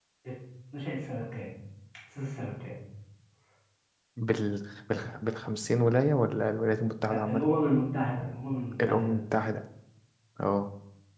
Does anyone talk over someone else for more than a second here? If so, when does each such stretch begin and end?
none

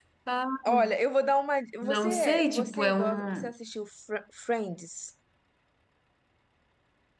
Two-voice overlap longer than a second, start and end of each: 1.8-3.5

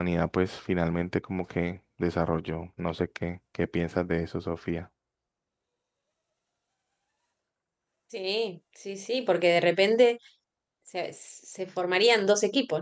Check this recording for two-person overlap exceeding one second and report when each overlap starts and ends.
none

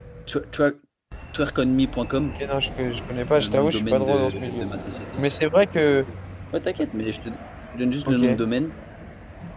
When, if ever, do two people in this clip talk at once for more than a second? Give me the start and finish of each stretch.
3.3-4.7

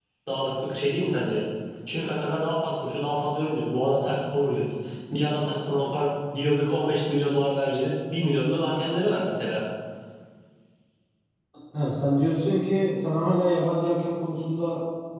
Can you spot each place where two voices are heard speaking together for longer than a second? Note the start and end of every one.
none

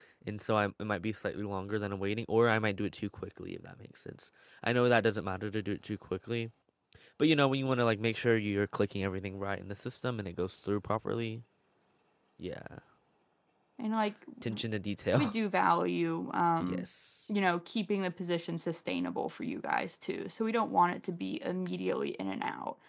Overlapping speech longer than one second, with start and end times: none

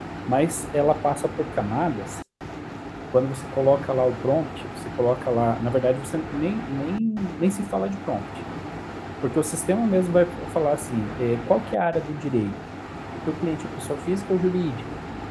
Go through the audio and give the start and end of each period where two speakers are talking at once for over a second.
none

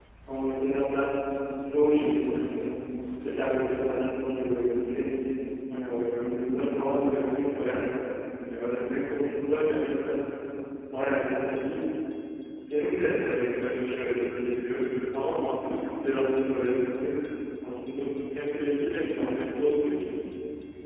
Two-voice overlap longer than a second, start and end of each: none

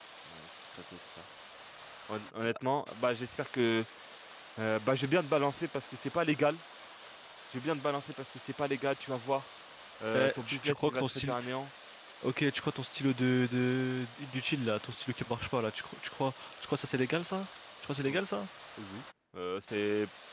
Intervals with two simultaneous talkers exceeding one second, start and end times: 10.1-11.4

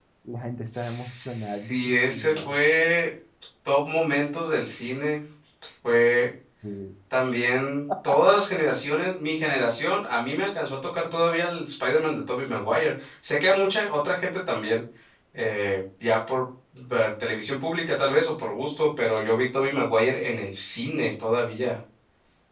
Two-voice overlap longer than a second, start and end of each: 0.7-2.6

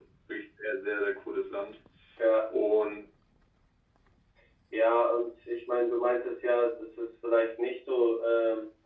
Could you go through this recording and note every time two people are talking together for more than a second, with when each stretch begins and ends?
none

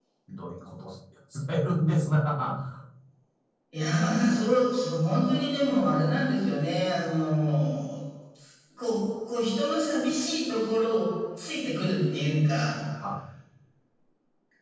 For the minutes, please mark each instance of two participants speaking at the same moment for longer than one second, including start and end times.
none

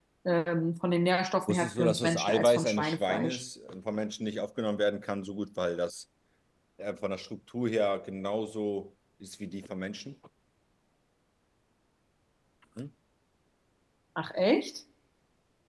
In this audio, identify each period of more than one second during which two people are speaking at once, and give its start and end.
1.5-3.4

